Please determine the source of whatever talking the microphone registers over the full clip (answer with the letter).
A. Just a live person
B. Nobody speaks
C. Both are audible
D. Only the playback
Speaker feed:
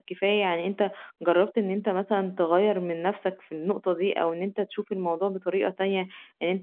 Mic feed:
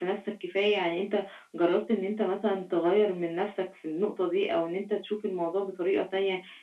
D